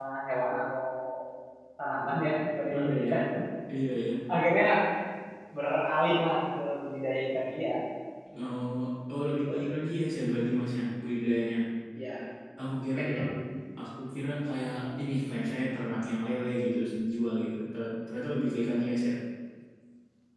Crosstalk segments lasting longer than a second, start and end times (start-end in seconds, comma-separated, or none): none